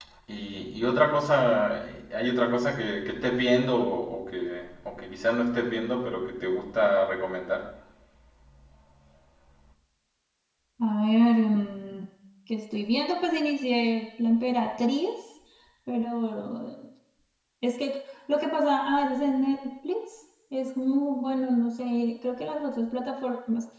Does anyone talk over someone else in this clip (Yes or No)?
No